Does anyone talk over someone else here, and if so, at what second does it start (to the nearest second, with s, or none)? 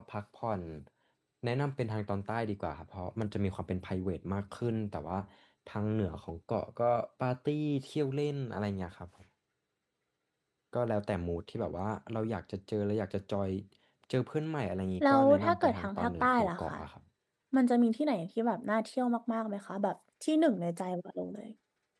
15 s